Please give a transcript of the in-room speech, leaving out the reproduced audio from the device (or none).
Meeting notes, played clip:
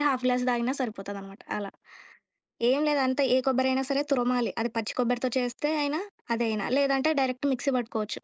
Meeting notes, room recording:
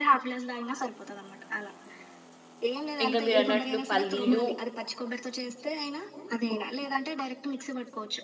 ఇంకా మీరన్నట్లు పల్లీలు,